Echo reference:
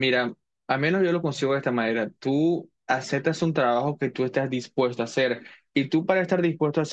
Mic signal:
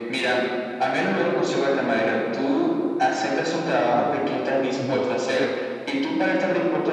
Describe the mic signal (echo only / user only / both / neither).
both